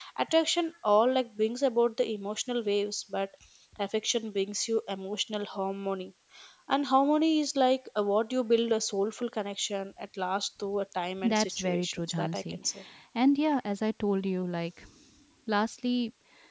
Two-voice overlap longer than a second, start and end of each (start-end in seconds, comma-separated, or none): 11.2-12.6